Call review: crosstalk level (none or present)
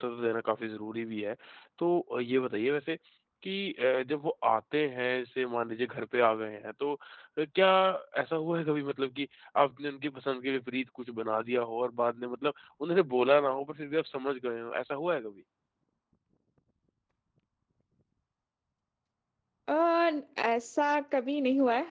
none